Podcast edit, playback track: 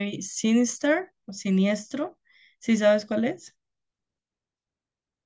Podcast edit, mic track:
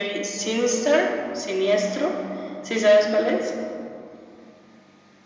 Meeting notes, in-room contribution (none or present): none